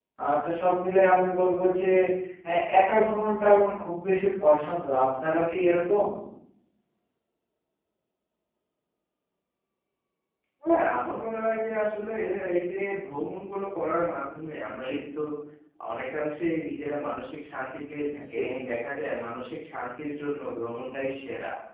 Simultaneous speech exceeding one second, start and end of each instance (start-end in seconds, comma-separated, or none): none